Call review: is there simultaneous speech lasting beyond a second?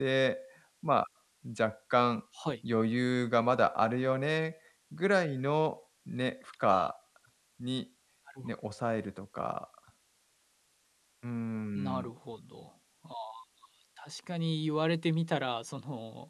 No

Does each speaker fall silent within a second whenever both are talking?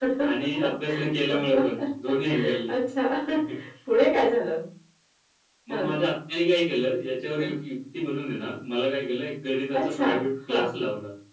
Yes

